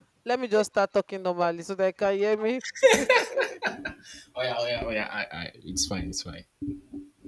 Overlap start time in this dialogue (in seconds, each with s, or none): none